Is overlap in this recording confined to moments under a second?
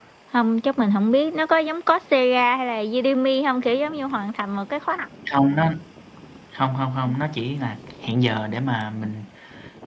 Yes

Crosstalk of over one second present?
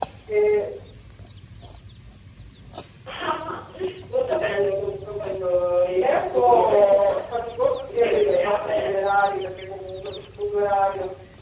Yes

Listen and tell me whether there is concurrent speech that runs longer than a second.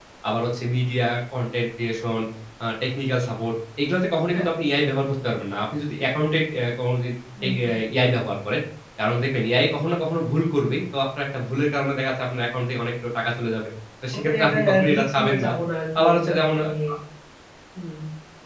Yes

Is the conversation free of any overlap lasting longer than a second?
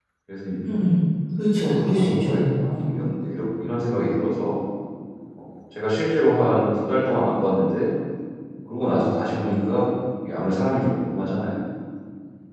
No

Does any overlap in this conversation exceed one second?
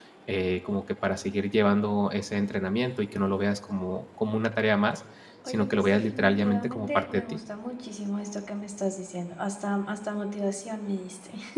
Yes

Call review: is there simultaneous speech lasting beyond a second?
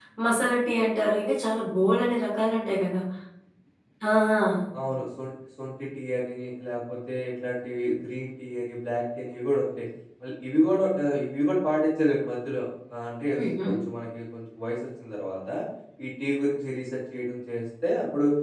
No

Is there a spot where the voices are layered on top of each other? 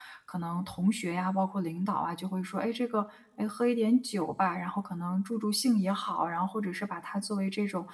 No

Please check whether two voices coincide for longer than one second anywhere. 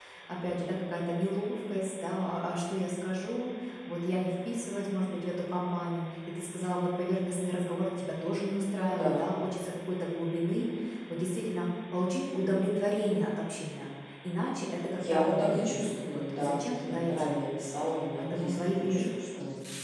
Yes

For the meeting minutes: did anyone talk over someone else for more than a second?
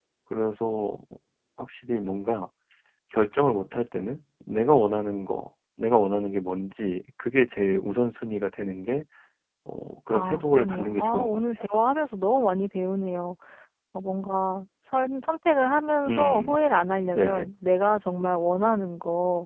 Yes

